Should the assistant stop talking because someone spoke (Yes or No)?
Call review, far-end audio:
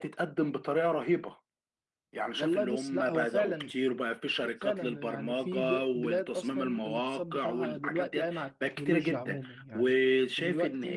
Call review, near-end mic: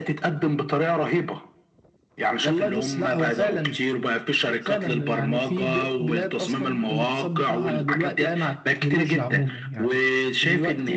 No